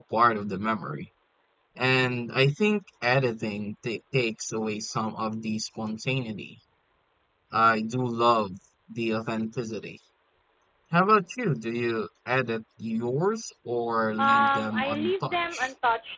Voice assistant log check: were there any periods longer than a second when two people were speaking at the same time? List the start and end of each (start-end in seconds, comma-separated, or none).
14.2-15.7